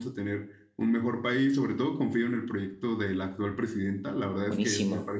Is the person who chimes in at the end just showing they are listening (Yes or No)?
Yes